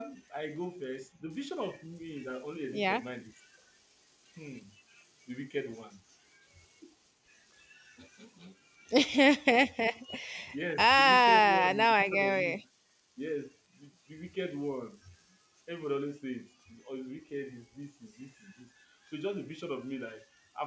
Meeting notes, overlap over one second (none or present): present